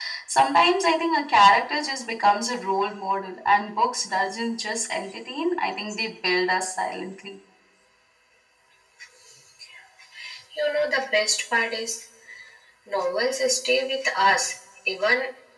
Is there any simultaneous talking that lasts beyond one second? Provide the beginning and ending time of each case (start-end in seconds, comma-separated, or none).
none